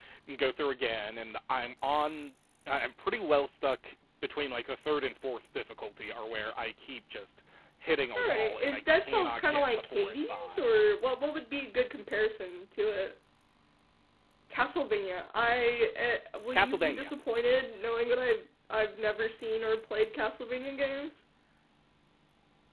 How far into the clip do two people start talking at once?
8.2 s

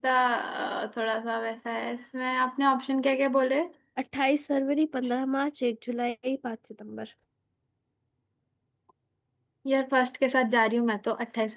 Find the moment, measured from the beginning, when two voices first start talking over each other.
none

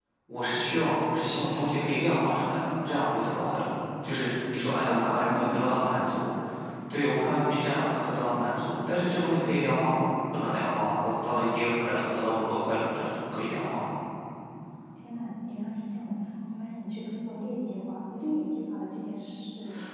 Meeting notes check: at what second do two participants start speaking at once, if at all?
4.8 s

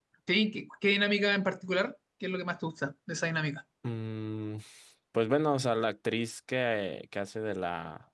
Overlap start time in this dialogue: none

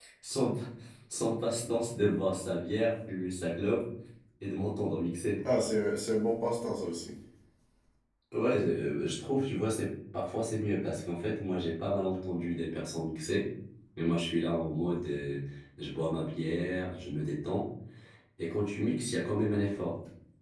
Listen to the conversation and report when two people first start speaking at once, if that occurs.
none

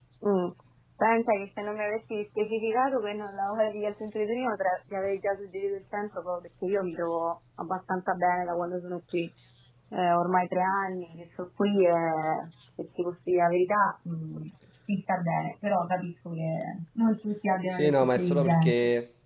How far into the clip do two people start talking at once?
17.7 s

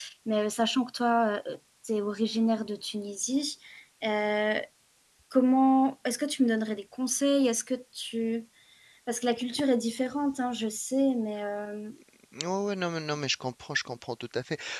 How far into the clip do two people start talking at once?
none

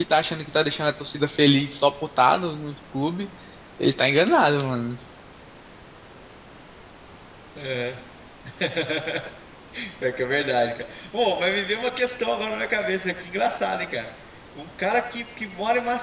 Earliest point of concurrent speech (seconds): none

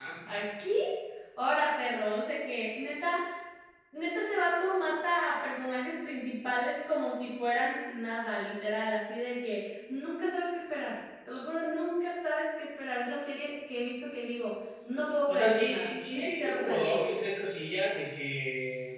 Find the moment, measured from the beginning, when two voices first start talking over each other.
15.3 s

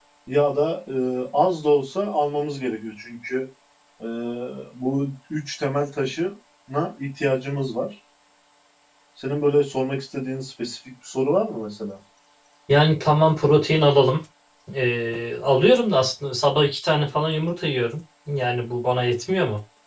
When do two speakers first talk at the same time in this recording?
none

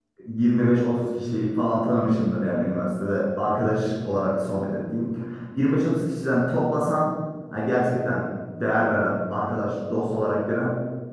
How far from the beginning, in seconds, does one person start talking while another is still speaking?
none

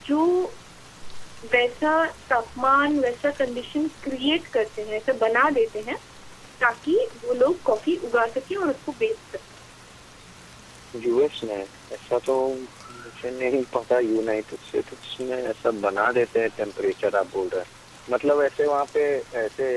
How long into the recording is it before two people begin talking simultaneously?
none

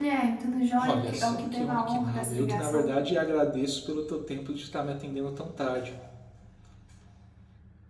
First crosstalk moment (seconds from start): 0.8 s

